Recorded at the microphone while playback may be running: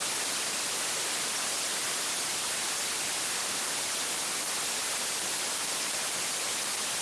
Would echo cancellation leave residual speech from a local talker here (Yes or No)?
No